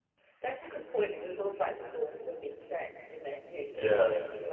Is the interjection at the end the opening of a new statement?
No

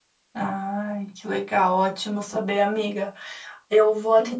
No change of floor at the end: Yes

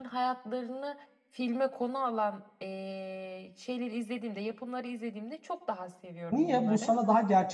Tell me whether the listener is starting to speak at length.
Yes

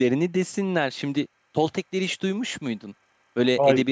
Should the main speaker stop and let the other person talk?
No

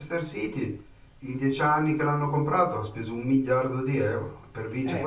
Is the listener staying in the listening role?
No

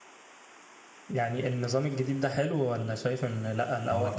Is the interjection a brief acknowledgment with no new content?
No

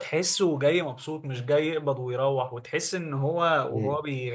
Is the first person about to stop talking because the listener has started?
No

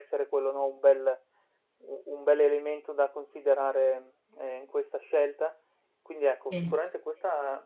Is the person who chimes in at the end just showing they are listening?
Yes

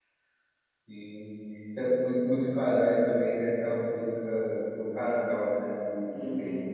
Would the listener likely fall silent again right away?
No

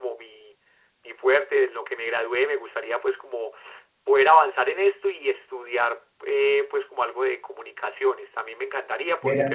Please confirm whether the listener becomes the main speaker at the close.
No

